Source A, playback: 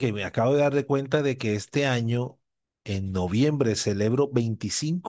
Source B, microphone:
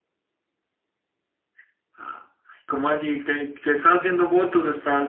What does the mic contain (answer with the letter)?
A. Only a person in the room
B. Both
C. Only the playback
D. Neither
A